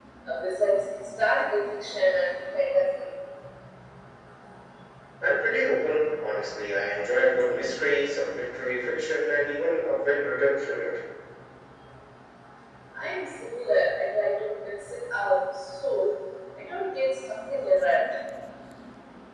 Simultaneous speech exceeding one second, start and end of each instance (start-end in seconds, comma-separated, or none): none